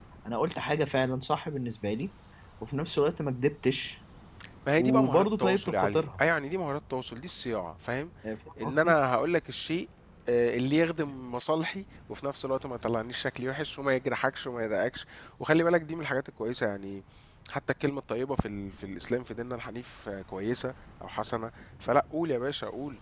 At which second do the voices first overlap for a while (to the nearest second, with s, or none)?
5 s